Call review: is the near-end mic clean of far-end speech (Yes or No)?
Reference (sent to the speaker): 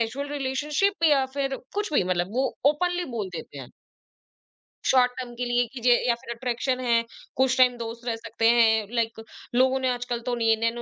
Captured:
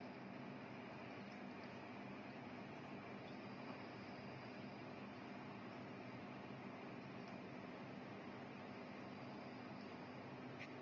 Yes